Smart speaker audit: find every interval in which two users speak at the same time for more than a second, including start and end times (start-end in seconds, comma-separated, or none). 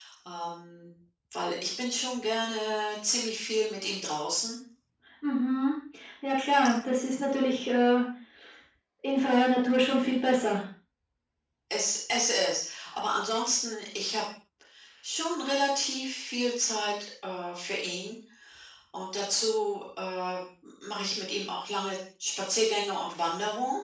none